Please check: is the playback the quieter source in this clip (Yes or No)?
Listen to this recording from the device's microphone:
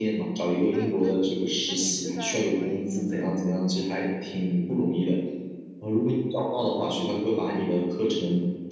No